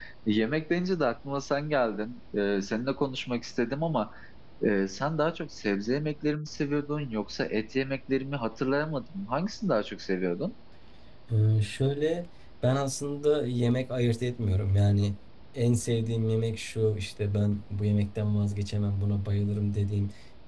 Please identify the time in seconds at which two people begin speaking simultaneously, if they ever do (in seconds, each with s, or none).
none